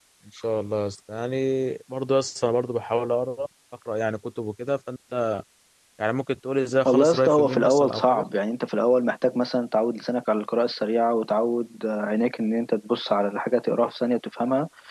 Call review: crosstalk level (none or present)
present